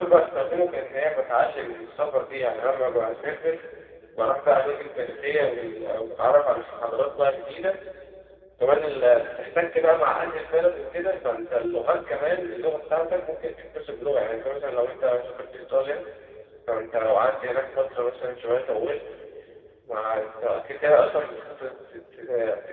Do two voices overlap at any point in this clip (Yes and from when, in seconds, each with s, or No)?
No